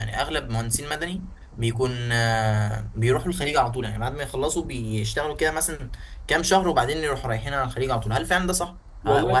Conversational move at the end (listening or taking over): listening